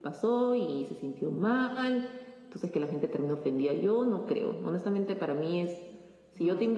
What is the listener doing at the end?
listening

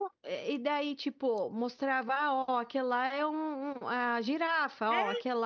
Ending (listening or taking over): taking over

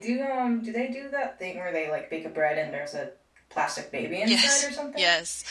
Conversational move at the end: taking over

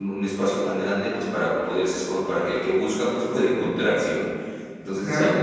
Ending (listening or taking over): listening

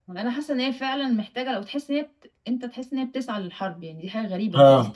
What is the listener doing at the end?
taking over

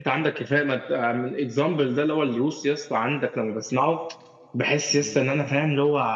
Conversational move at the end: listening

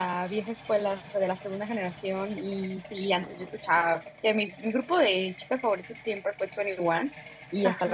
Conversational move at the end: listening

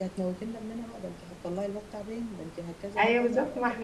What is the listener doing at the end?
taking over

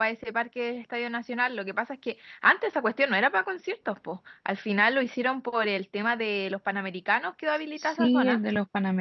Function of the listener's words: taking over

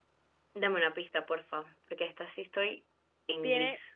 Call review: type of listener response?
taking over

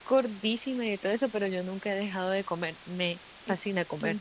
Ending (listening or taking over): taking over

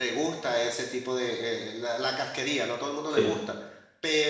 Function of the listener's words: listening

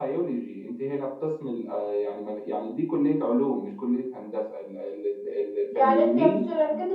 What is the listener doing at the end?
taking over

